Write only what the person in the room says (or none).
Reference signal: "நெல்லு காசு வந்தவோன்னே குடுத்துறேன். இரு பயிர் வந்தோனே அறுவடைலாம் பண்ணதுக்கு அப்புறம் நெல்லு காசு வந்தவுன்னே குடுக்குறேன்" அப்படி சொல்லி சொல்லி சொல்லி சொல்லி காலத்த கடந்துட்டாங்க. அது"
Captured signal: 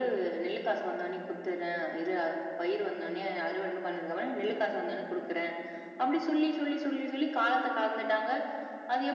none